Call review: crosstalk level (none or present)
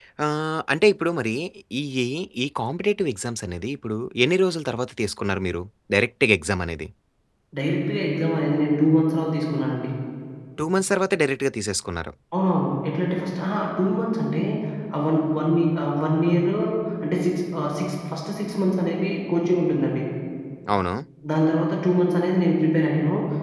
none